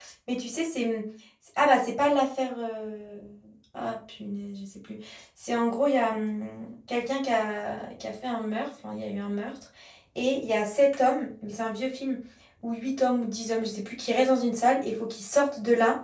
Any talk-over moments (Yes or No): No